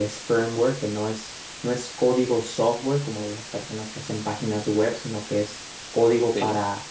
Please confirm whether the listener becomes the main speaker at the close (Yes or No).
No